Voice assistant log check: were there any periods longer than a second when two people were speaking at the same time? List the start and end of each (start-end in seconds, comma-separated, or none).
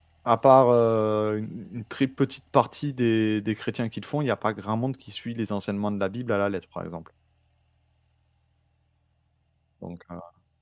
none